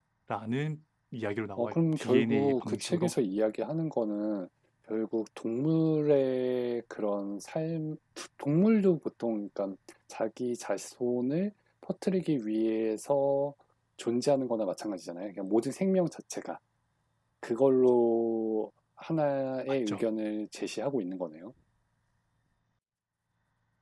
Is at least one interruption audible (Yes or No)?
Yes